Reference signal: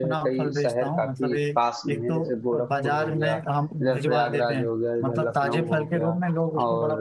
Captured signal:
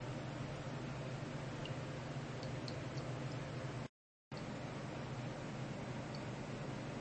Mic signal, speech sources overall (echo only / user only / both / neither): neither